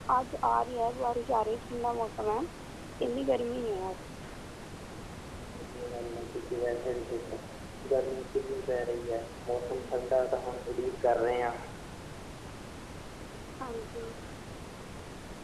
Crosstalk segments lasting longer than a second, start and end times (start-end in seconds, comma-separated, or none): none